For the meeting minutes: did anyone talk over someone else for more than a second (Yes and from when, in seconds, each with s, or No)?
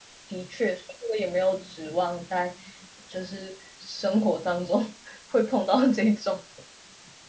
No